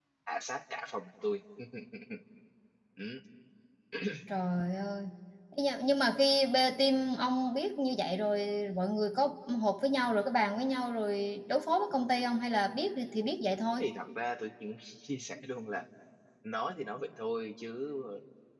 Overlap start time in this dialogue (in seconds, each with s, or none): none